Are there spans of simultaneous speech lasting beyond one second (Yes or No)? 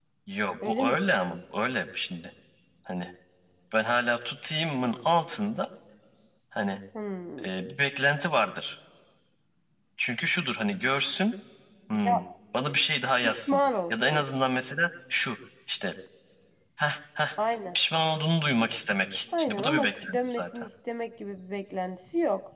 Yes